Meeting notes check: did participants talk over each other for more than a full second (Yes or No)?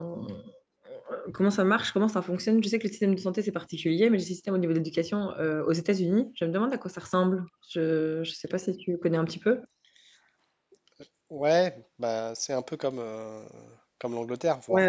No